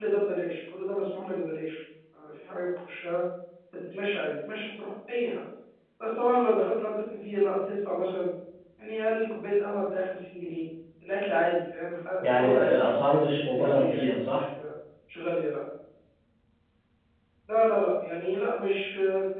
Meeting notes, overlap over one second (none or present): present